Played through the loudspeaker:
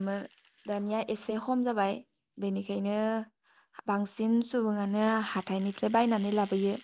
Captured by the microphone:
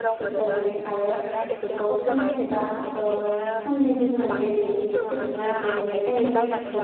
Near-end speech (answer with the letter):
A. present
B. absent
A